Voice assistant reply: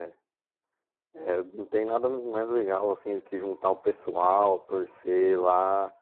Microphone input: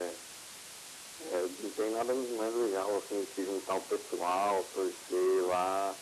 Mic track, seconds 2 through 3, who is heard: echo only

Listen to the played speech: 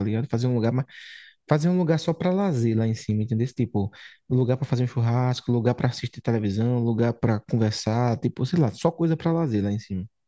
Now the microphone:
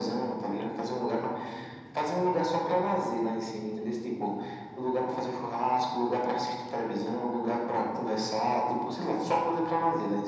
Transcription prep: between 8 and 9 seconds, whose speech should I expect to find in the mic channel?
echo only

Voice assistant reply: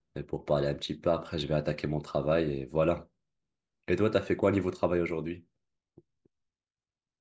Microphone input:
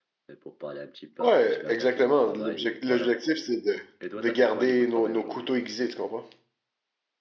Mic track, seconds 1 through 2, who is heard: both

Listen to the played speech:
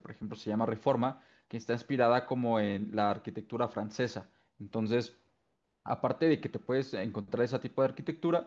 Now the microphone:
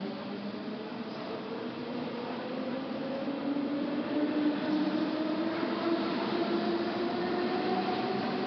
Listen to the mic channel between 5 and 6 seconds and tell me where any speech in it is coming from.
neither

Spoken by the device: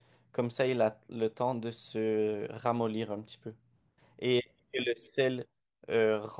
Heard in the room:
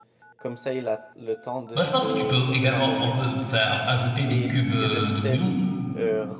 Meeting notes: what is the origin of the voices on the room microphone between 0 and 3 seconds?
both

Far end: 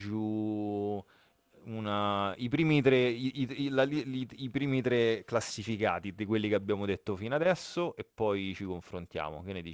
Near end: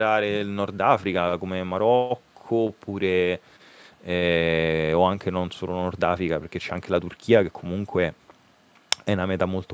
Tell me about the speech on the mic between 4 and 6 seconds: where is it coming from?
user only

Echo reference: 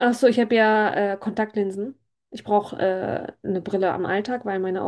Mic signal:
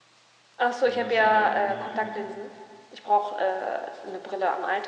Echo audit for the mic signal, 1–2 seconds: both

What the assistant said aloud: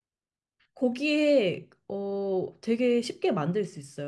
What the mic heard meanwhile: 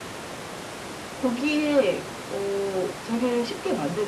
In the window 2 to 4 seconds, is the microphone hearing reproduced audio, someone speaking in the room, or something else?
echo only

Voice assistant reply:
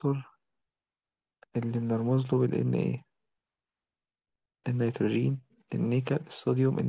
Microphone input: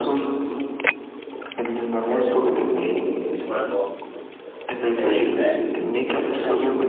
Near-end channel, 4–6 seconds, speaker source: both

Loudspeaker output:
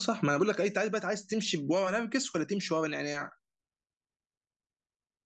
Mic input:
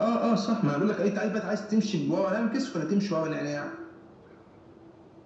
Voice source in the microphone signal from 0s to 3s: echo only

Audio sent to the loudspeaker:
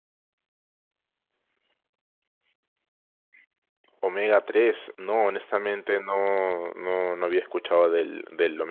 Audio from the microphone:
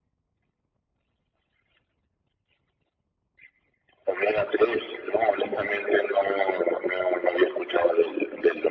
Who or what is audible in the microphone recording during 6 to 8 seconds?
echo only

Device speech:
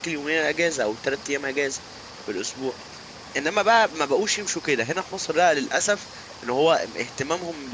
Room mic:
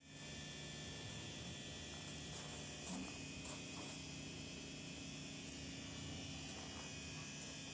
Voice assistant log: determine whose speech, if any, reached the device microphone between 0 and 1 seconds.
neither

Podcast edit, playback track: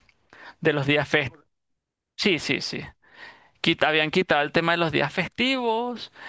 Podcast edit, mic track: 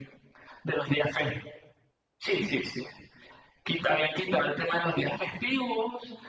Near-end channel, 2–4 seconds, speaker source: echo only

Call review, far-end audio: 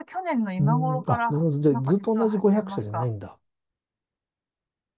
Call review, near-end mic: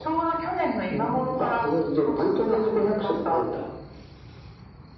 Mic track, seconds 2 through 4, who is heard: echo only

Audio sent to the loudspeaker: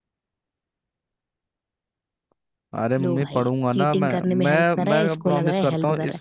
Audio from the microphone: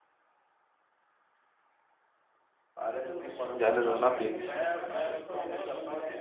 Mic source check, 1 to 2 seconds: neither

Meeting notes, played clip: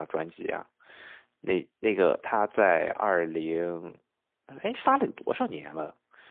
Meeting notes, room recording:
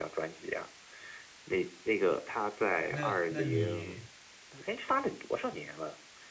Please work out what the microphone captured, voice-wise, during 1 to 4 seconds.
both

